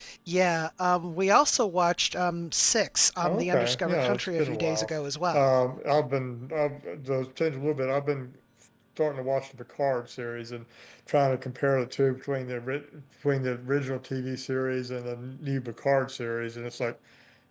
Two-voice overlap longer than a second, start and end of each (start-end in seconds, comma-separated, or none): 3.2-4.9